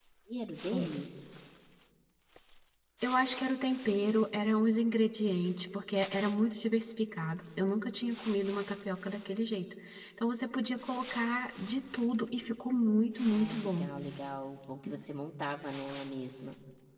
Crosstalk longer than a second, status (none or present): none